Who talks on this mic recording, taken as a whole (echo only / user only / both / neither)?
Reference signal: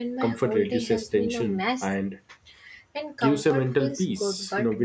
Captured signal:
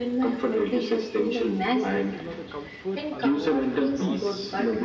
both